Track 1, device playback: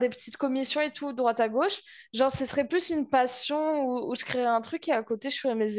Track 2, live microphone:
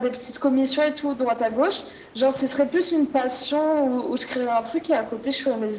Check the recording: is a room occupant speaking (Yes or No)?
No